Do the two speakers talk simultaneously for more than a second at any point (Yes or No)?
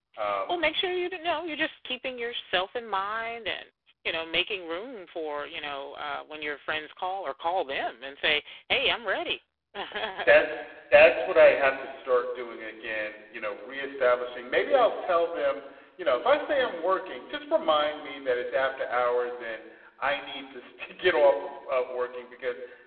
No